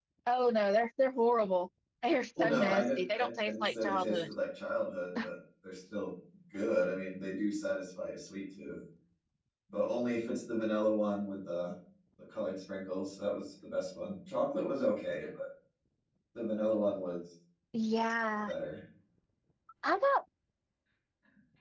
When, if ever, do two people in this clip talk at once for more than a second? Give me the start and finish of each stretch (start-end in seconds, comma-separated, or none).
2.4-4.3